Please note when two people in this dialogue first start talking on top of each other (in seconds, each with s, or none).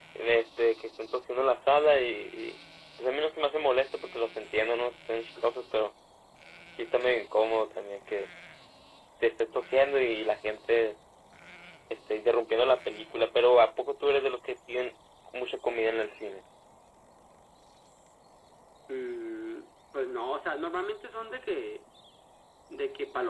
none